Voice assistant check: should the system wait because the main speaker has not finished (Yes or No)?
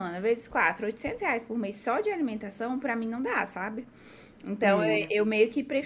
Yes